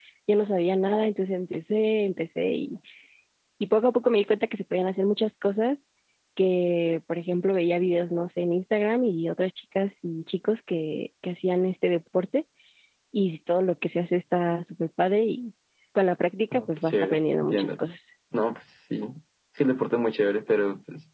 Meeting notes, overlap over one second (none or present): present